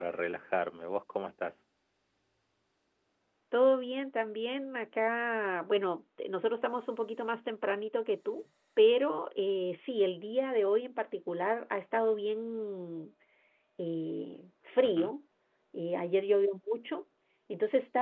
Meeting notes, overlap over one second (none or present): none